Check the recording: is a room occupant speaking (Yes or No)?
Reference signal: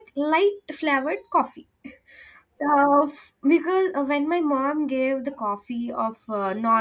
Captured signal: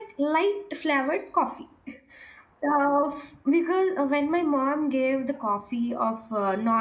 No